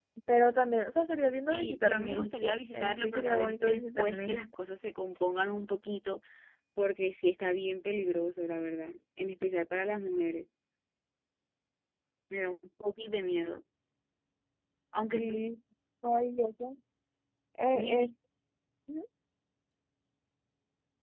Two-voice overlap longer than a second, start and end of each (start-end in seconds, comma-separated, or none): 1.5-4.4